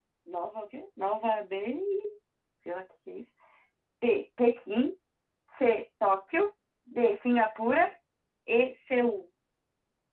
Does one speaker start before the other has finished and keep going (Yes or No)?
No